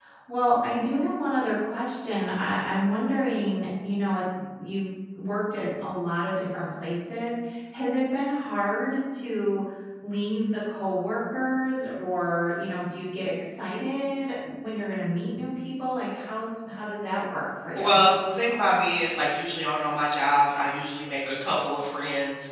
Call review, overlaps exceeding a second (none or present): none